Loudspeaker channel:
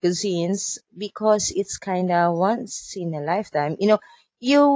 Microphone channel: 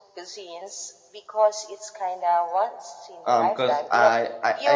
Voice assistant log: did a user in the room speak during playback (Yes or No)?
Yes